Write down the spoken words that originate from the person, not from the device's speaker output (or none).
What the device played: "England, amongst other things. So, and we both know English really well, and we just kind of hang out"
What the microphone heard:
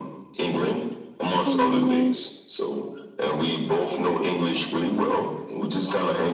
Hey, Mimi,